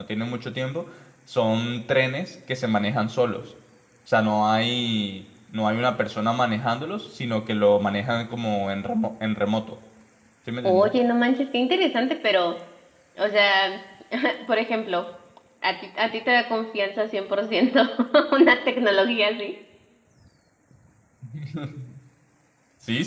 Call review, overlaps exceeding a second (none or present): none